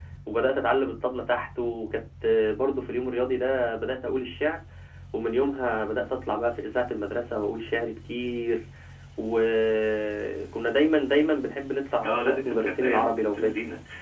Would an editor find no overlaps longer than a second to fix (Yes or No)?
No